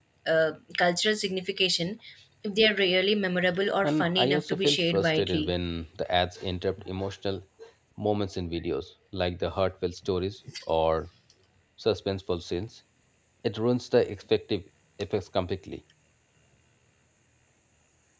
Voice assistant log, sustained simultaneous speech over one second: present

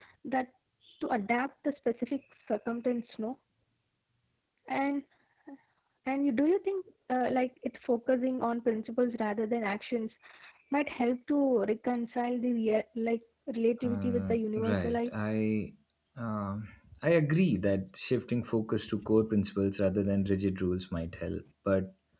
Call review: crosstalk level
present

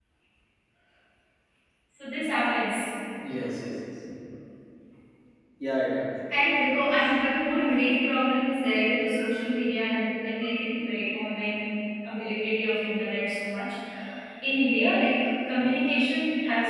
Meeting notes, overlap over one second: none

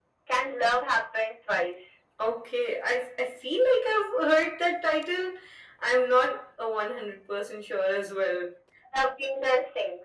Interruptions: none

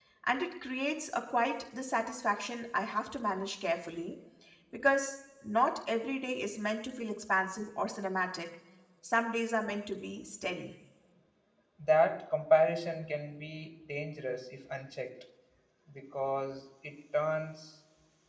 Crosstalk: none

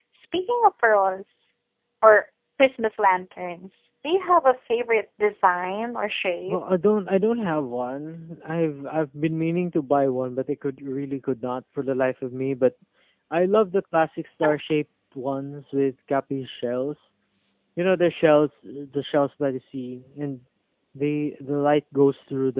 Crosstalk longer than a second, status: none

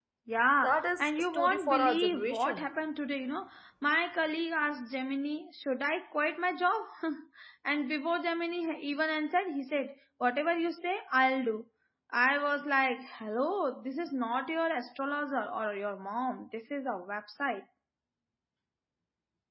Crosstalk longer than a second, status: present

